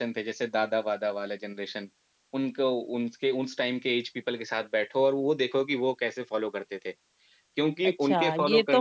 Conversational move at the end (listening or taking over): taking over